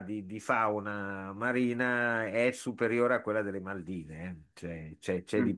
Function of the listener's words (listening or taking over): listening